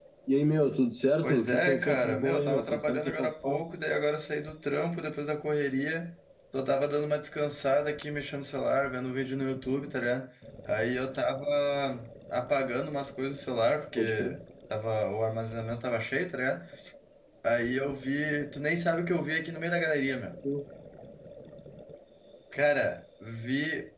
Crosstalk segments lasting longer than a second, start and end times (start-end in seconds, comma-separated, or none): 1.2-3.6